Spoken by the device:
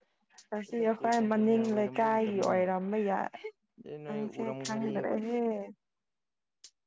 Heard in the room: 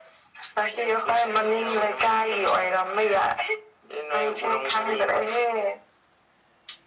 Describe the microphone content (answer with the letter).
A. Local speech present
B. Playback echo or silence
B